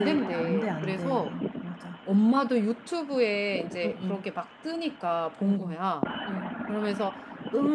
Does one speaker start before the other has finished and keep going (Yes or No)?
Yes